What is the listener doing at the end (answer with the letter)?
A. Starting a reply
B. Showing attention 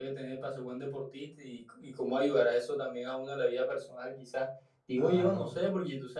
B